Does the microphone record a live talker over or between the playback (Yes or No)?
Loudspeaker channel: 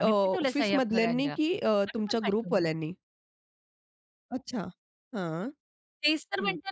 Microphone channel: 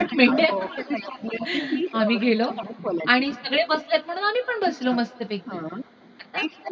Yes